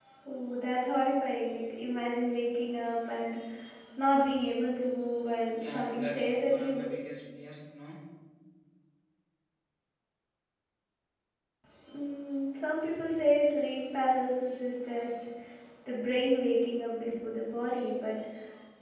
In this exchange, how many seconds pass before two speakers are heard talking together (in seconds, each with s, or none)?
5.6 s